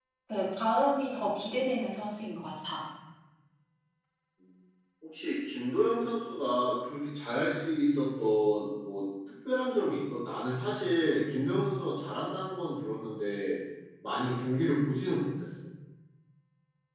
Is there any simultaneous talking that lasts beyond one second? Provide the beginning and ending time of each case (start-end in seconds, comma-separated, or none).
none